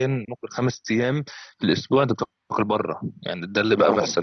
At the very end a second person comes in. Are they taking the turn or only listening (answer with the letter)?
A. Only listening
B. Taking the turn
B